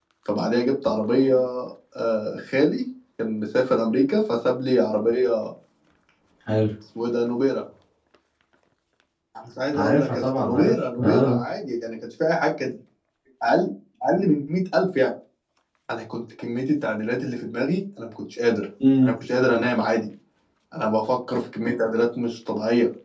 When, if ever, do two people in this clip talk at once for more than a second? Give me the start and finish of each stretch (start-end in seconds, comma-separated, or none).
9.7-11.4